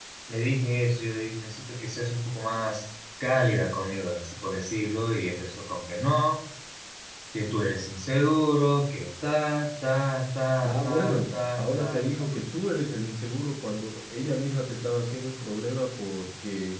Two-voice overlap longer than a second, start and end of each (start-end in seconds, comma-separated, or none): 10.6-12.0